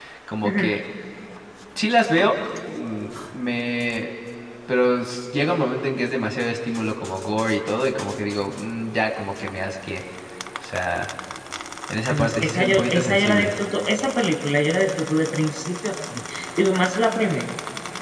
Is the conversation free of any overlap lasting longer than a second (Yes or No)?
No